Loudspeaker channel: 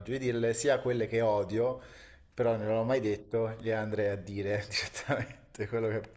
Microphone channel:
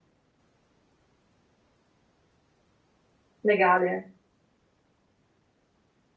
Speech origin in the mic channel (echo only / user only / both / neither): user only